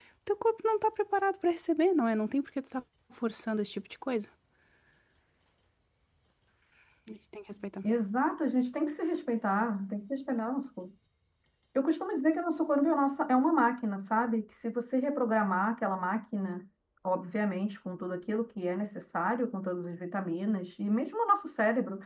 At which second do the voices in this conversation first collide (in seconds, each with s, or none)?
none